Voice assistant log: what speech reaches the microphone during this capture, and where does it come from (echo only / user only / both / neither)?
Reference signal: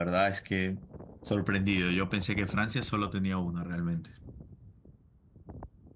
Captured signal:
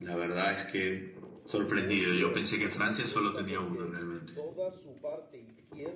both